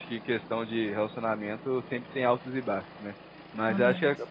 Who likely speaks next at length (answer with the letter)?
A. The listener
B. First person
B